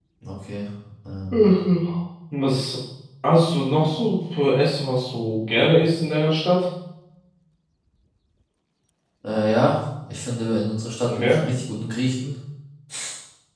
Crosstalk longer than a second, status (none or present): none